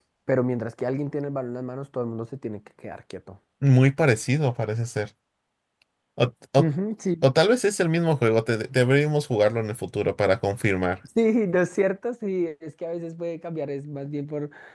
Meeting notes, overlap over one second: none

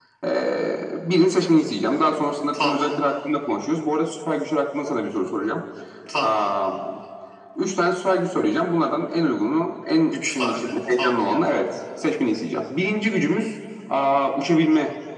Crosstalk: present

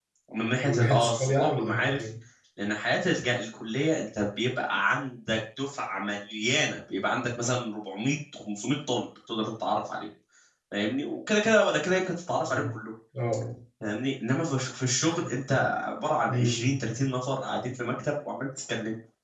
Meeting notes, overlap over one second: present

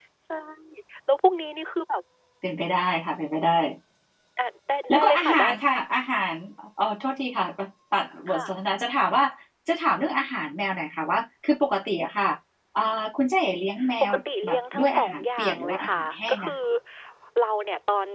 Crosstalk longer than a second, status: present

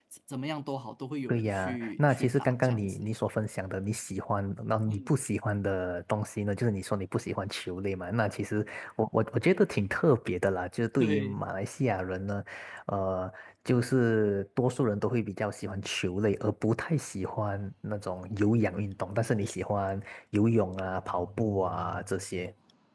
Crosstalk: present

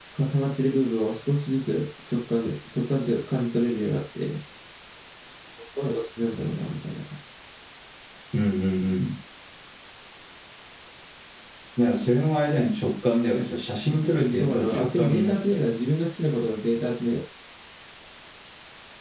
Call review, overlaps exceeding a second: present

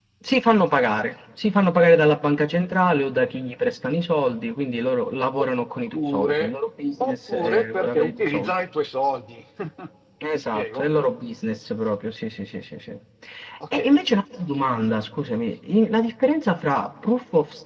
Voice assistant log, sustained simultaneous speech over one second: present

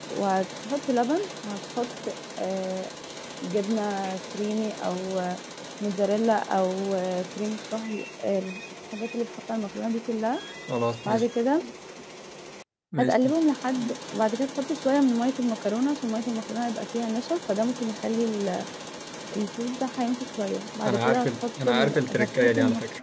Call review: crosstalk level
present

